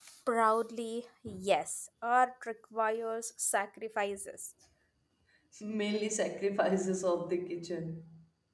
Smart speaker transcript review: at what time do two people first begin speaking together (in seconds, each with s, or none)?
none